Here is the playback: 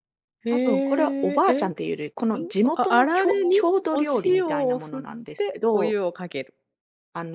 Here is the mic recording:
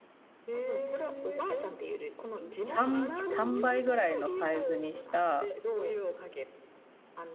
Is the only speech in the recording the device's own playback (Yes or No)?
No